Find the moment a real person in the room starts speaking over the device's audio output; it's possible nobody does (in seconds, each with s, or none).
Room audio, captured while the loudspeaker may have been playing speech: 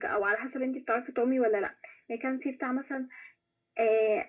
none